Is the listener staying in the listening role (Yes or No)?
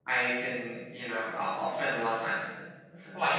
No